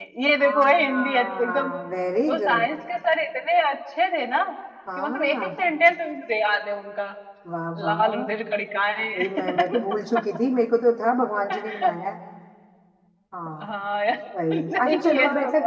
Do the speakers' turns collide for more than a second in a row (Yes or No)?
Yes